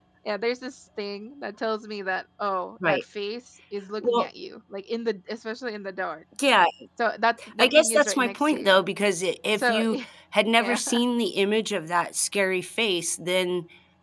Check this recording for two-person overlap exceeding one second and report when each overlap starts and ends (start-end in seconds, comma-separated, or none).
7.6-8.8